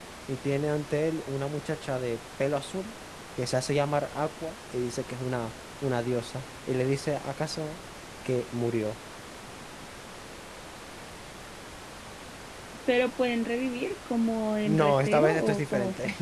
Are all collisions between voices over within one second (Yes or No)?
No